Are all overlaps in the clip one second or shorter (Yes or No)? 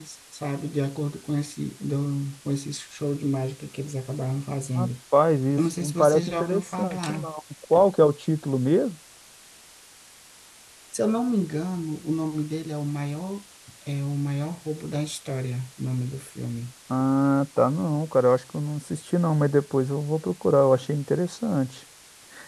No